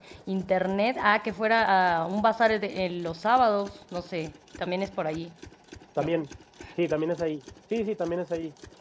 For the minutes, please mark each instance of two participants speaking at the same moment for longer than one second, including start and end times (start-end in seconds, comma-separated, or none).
none